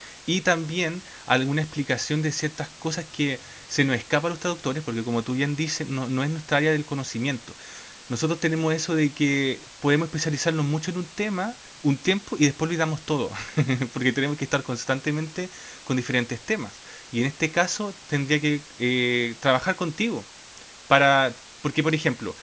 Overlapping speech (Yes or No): No